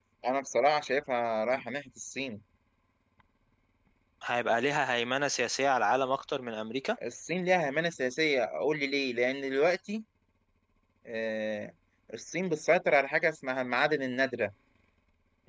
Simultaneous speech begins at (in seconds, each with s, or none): none